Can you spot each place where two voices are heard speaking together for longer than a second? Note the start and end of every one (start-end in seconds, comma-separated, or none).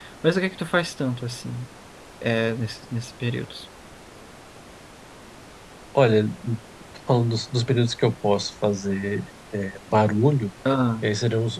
none